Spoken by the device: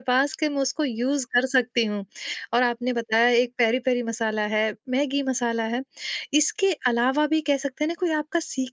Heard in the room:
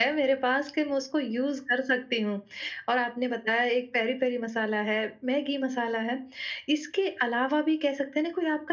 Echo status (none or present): present